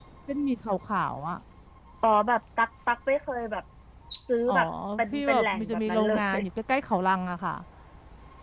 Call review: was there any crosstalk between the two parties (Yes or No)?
Yes